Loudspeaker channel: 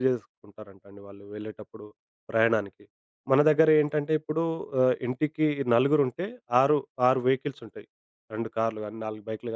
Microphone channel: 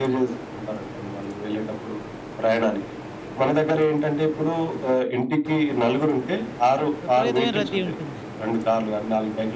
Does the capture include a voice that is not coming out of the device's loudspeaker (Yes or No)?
Yes